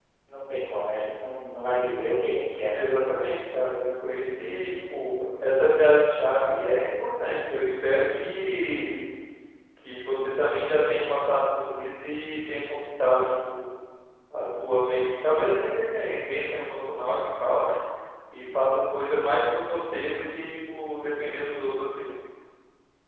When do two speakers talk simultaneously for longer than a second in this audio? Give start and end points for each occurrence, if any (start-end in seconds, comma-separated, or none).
none